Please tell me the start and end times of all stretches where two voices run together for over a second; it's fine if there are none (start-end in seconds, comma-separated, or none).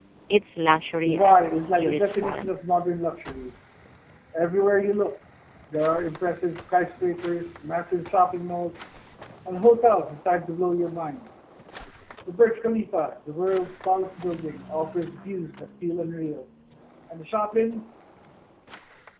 1.0-2.5